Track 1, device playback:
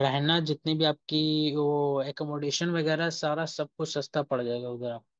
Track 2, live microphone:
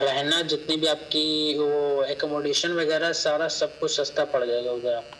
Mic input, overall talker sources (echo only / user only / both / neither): echo only